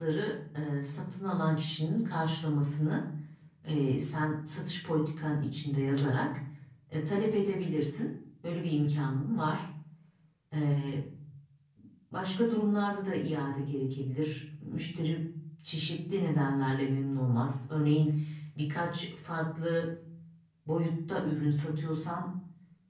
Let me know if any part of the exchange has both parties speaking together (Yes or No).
No